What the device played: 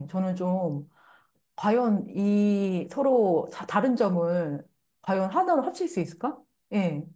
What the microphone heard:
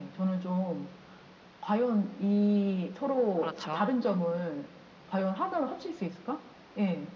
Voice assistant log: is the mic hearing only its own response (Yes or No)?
No